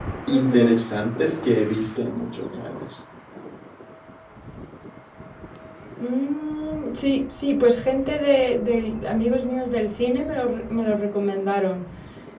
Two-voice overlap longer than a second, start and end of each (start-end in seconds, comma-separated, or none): none